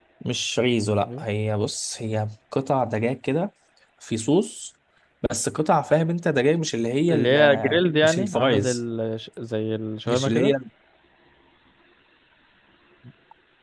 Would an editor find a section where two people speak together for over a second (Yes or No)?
Yes